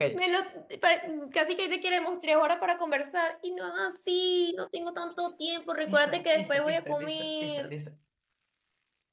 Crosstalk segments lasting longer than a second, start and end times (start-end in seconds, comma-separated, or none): 5.9-7.7